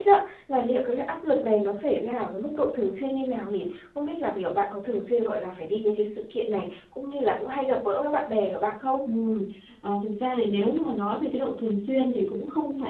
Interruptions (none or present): none